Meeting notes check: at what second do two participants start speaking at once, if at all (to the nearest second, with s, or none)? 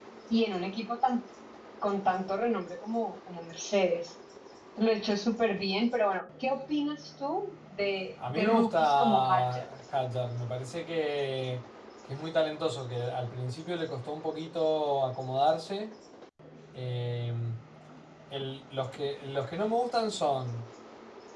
8 s